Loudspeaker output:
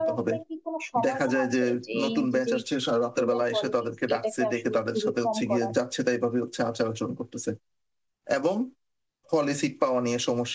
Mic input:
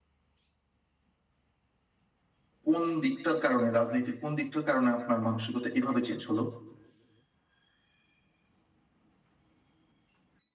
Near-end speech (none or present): present